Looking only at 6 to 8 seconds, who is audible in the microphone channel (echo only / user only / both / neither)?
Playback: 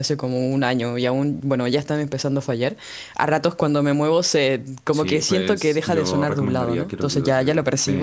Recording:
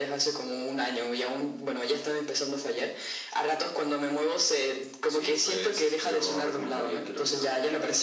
echo only